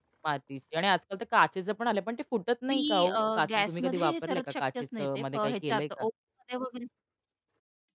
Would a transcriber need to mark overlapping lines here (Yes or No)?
Yes